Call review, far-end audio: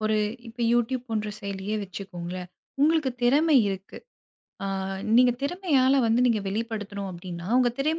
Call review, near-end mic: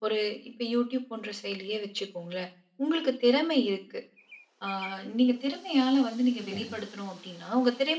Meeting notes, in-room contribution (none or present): present